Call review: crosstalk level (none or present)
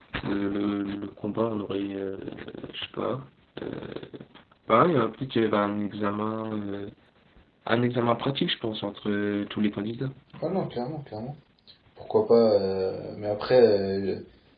none